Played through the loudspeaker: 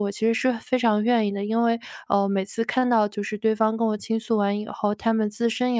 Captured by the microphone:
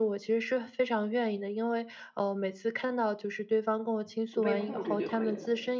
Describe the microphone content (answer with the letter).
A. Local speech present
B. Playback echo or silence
A